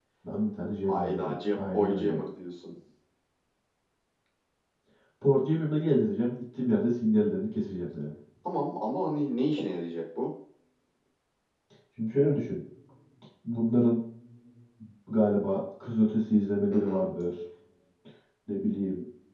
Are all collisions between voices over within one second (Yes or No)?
No